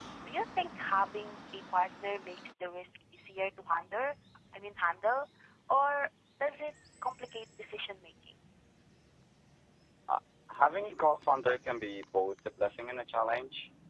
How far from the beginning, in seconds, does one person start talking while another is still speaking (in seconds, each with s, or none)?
none